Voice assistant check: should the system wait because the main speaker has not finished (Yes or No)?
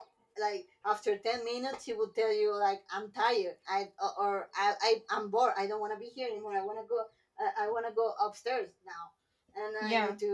Yes